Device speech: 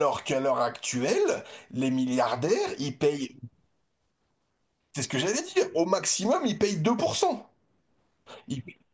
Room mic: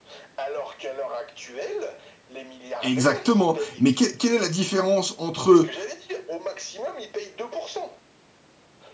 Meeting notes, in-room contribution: present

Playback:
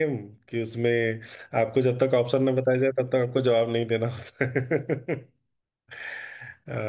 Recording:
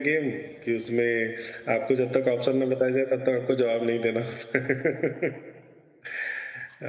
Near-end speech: none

